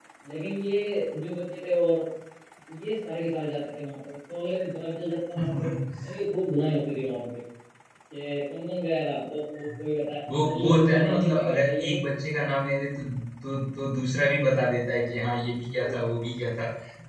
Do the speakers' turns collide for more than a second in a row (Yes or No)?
Yes